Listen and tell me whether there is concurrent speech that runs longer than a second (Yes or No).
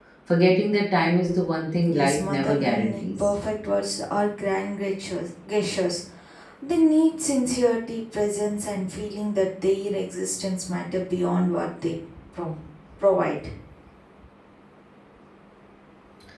Yes